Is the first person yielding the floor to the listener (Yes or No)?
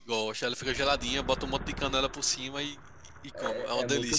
Yes